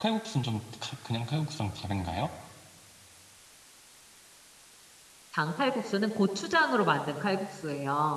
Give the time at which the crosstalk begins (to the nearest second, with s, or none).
none